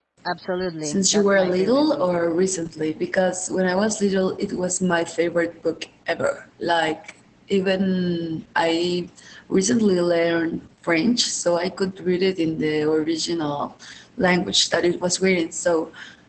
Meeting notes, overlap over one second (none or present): present